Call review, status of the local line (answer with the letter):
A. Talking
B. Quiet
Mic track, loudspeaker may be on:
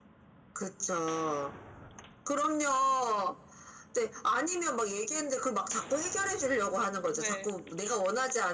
A